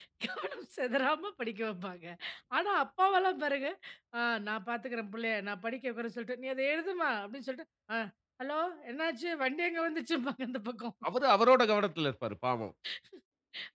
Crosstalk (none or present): none